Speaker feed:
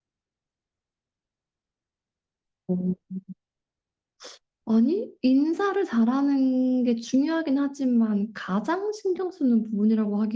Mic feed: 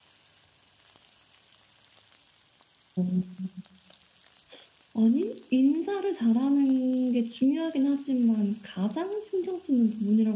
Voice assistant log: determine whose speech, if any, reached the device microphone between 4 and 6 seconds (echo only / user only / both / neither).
echo only